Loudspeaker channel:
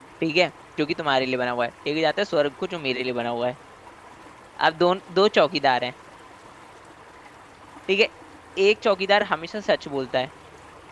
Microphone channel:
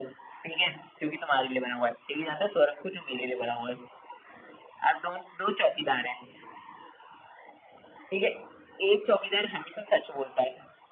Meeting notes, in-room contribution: none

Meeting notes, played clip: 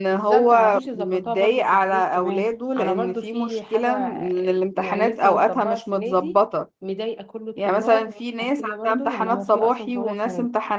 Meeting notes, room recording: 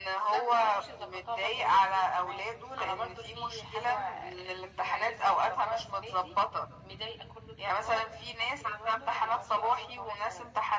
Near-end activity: none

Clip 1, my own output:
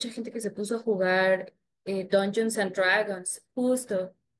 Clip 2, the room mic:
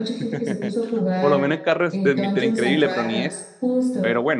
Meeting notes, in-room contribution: present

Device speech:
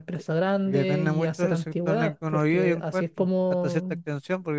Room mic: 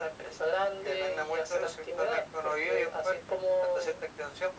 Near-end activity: none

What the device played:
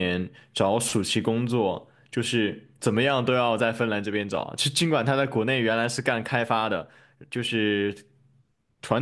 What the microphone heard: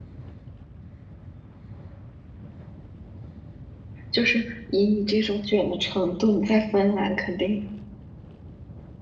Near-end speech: present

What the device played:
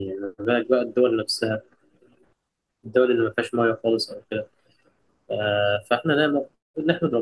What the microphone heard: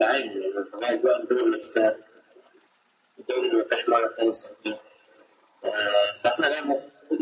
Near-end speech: none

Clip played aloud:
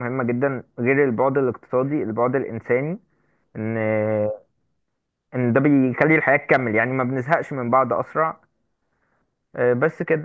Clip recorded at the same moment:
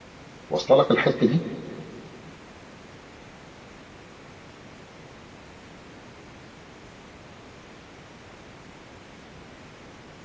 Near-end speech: present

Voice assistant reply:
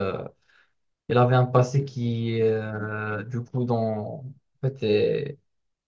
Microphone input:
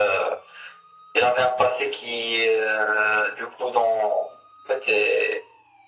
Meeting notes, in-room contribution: none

